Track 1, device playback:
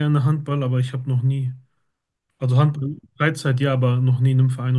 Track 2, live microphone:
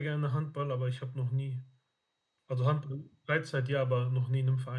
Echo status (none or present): present